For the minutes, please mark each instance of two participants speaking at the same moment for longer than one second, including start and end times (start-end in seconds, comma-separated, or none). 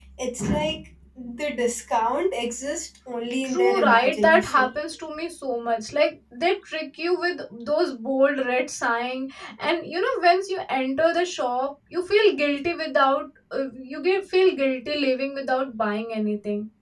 3.4-4.7